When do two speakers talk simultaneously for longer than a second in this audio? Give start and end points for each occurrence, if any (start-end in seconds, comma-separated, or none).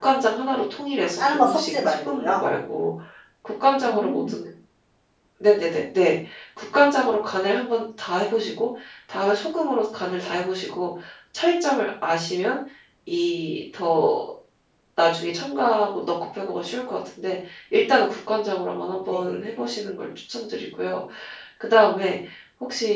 1.2-2.4